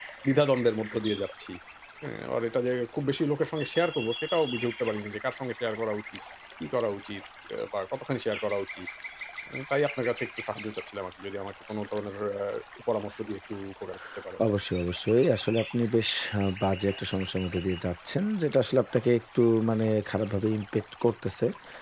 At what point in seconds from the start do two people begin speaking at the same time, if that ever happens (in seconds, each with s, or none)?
none